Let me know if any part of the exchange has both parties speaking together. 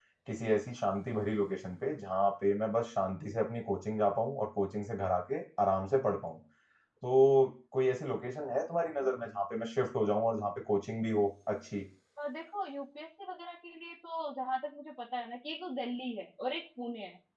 No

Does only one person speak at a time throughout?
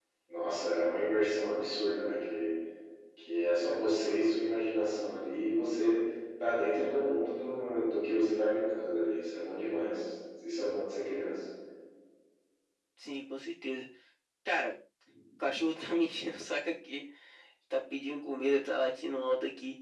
Yes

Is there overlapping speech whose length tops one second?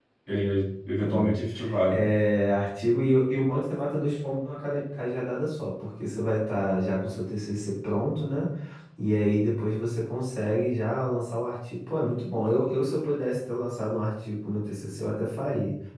No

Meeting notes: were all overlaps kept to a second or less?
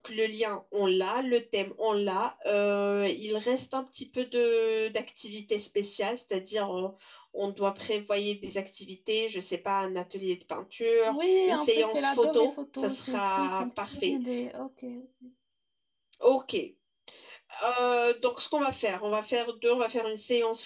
No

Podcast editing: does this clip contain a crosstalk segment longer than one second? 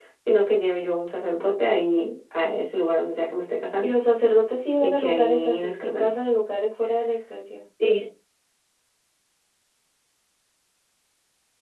Yes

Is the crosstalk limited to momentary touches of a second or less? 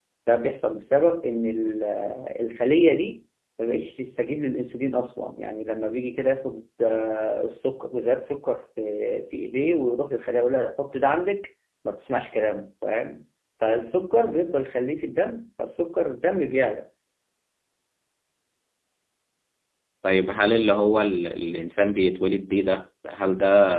Yes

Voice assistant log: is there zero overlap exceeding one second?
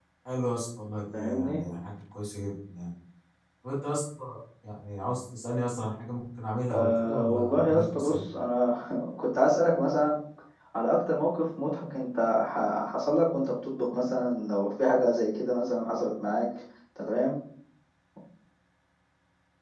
No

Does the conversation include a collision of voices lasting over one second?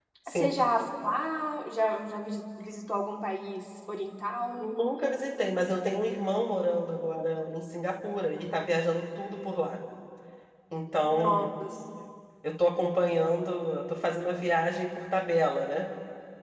No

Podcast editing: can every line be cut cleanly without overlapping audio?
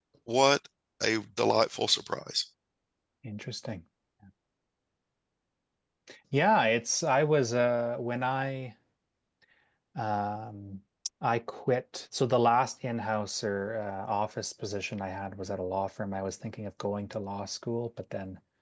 Yes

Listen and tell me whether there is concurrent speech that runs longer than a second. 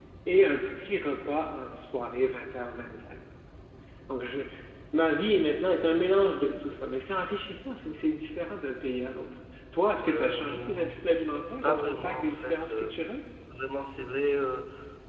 Yes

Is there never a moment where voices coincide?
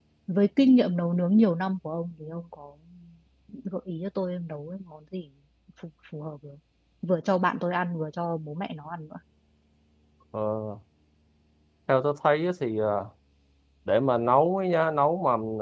Yes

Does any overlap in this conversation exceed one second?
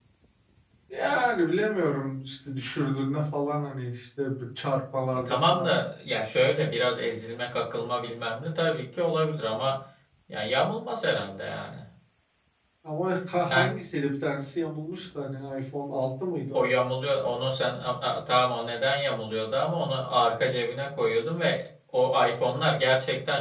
No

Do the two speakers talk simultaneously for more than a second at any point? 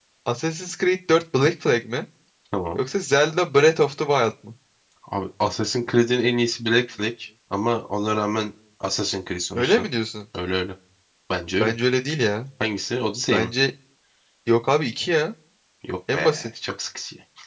No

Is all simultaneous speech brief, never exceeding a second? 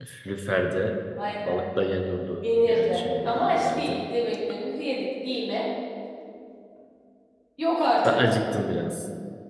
No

